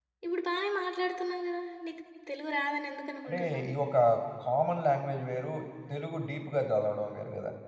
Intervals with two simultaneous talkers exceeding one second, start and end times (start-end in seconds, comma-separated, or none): none